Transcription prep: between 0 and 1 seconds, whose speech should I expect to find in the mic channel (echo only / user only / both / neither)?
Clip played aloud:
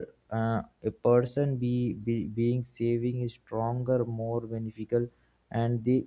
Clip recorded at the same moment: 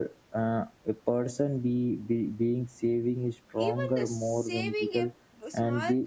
echo only